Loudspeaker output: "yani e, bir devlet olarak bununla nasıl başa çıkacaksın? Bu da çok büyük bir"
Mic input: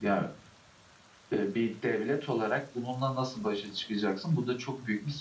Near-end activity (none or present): none